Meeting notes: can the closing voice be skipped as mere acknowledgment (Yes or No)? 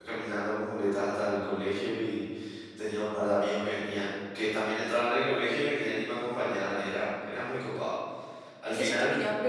No